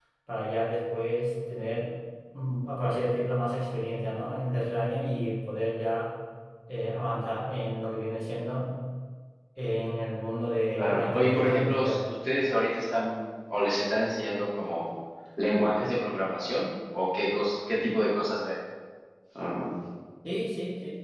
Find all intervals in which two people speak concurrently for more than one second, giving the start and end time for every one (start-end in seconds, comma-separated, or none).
10.7-12.1